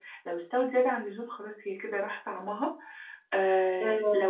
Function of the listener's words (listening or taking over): listening